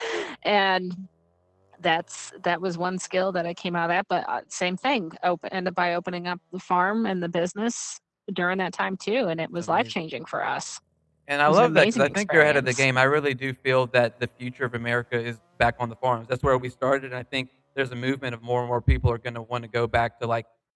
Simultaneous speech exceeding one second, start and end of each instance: 11.5-12.8

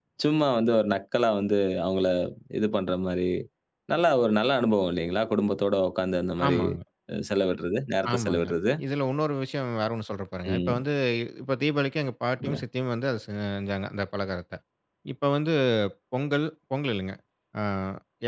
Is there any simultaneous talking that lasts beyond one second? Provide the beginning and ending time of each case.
none

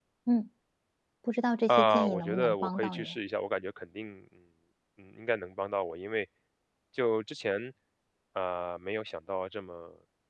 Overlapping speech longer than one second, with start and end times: 1.7-3.2

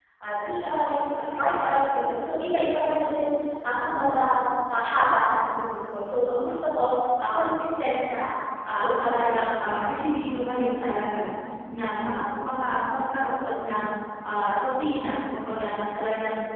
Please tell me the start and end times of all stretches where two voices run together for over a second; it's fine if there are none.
8.7-10.2

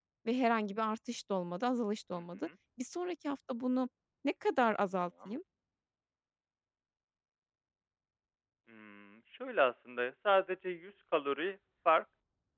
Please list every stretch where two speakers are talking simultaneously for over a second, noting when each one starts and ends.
none

